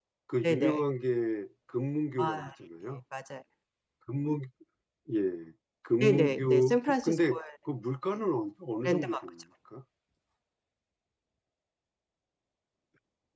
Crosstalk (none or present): present